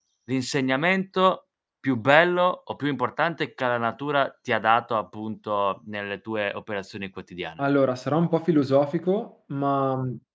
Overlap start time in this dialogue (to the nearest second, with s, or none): none